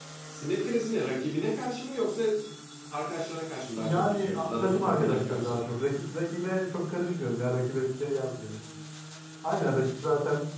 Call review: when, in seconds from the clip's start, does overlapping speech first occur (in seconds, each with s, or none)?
3.8 s